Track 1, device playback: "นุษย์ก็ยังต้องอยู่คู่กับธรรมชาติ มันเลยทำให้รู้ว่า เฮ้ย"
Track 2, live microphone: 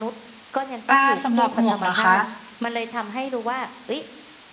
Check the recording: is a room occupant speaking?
Yes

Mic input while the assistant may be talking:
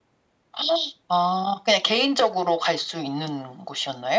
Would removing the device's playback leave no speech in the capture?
Yes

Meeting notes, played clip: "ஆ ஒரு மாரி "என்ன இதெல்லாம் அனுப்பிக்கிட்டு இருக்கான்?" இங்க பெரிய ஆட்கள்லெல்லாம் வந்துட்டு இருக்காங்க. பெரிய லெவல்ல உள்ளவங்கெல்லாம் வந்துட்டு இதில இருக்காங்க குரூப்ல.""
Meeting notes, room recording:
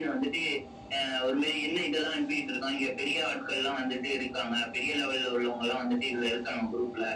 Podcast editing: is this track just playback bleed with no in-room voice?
Yes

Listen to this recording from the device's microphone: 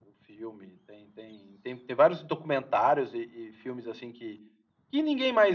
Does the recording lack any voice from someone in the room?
Yes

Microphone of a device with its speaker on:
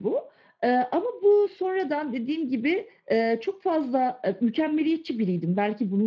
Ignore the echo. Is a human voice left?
No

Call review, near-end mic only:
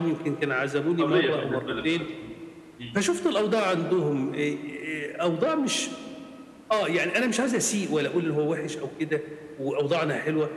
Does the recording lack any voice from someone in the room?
No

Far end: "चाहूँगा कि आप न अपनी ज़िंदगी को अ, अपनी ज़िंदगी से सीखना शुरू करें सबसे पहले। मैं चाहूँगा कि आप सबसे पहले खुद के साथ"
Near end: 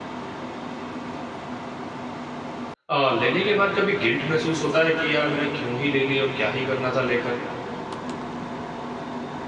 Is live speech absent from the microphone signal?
No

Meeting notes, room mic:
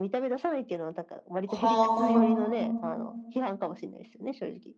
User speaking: Yes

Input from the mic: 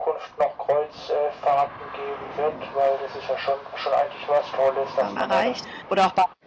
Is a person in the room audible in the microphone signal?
Yes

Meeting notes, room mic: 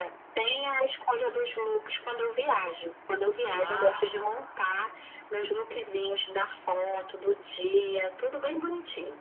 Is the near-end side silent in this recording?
No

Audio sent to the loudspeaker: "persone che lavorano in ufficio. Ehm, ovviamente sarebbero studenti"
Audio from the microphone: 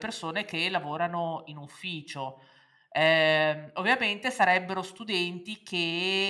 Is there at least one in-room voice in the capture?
No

